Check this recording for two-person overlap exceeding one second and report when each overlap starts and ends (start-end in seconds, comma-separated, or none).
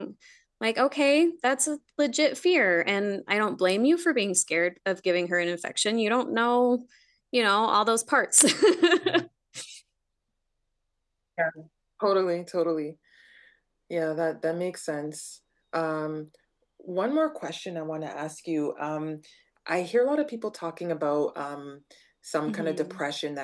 none